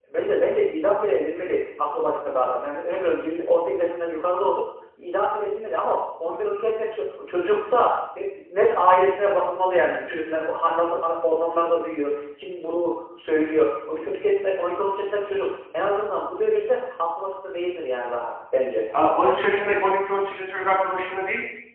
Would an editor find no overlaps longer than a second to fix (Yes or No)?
Yes